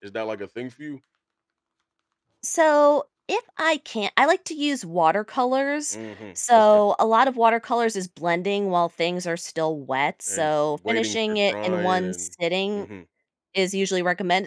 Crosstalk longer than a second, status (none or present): present